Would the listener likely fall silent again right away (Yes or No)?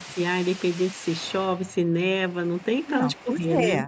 No